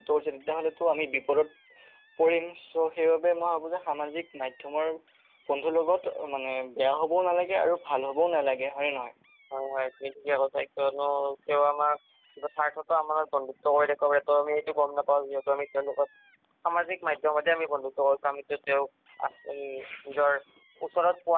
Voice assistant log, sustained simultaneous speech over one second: none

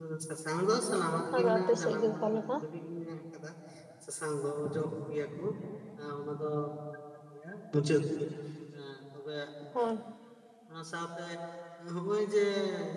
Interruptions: present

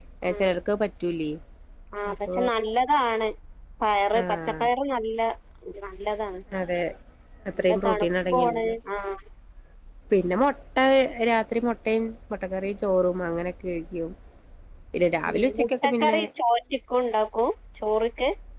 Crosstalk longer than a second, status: present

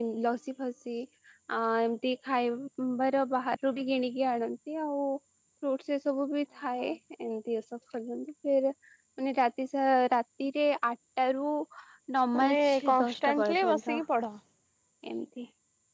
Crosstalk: present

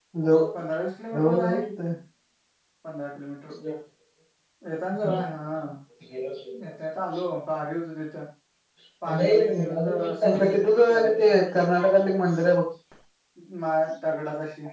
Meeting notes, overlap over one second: present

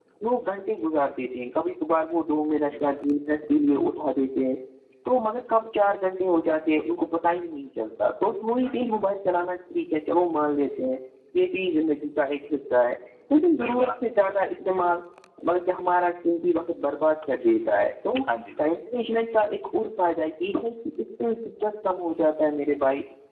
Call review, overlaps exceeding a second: none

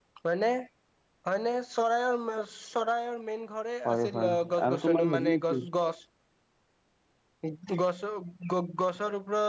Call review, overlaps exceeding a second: present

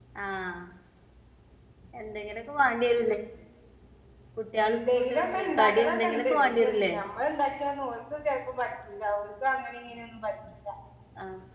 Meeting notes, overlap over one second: present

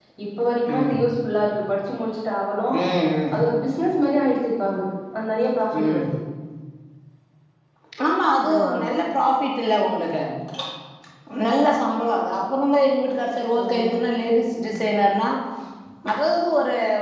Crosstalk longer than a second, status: none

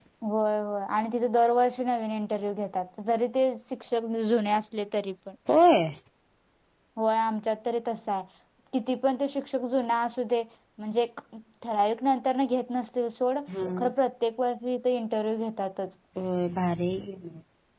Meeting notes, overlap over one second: none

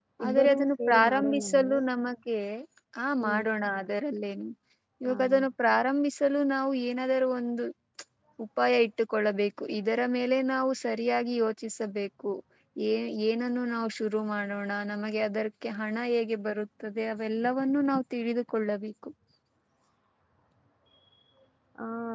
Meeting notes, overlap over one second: present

